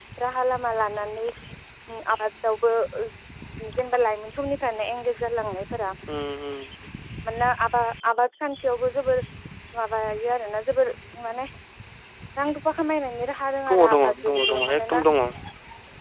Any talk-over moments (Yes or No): Yes